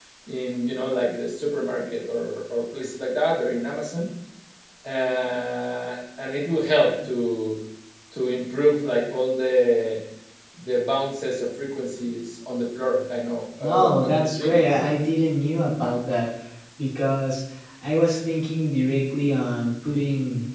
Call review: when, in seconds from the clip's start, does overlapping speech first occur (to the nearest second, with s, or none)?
14 s